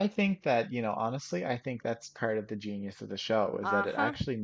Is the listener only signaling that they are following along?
Yes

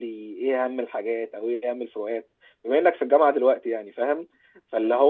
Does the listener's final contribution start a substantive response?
No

